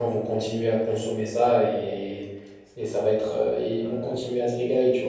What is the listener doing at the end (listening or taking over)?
taking over